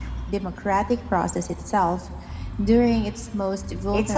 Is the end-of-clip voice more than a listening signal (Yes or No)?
Yes